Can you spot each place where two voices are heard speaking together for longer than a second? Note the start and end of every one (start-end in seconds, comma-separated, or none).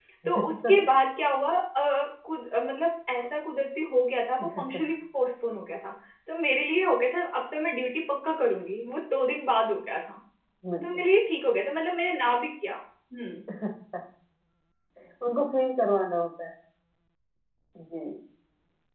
none